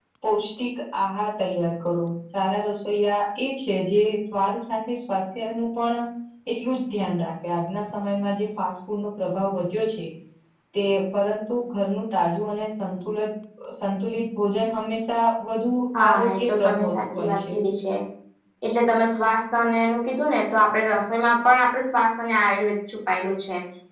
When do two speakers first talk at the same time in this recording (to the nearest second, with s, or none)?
16 s